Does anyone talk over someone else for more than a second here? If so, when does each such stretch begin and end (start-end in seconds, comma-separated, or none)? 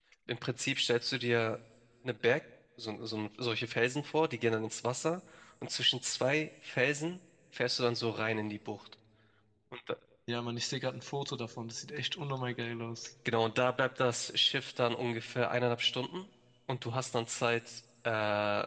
none